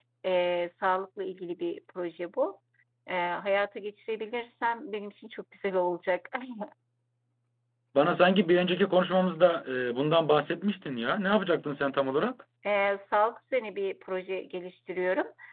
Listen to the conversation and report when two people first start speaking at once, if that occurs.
none

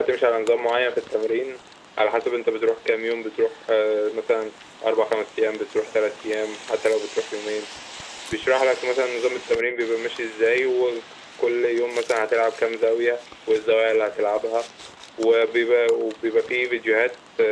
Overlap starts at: none

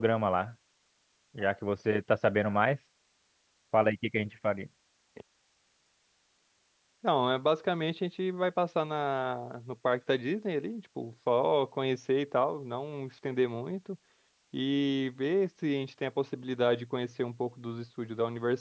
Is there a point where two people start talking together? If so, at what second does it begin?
none

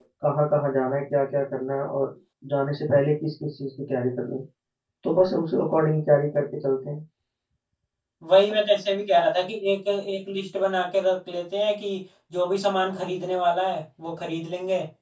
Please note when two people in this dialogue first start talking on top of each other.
none

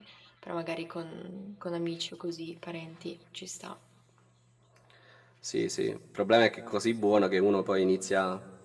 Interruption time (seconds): none

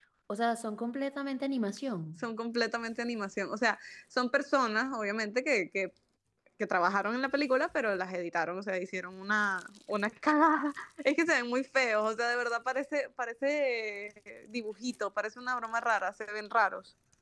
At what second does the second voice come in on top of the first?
none

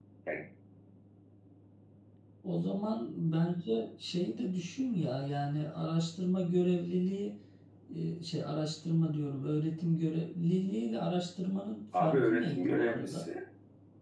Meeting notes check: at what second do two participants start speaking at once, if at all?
12 s

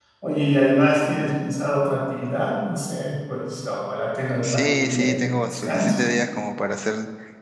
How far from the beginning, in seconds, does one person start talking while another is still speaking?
4 s

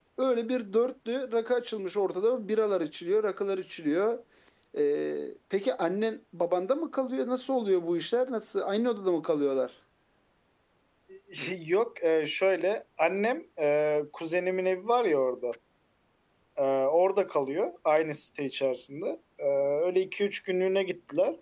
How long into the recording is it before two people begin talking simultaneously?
none

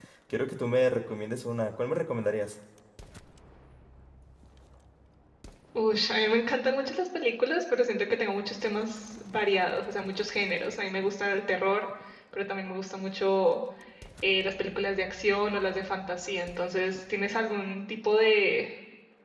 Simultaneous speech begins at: none

